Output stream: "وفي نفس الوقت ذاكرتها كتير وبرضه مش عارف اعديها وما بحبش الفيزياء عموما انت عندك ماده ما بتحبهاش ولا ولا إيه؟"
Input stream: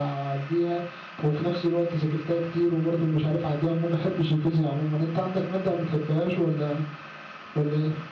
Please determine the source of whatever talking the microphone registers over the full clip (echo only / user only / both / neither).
echo only